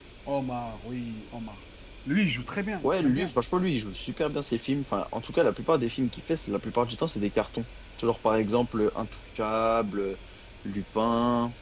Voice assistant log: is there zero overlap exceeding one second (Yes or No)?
Yes